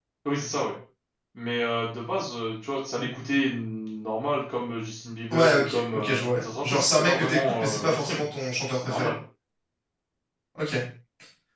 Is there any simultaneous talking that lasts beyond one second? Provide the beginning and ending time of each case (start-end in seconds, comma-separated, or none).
5.3-8.2